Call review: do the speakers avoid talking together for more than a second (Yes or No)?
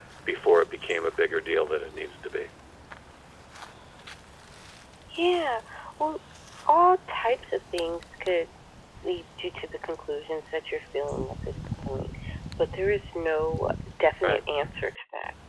Yes